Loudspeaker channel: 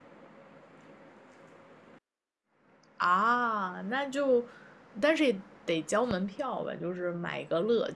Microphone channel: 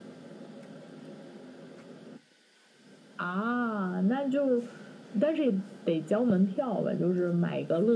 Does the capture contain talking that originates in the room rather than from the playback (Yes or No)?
No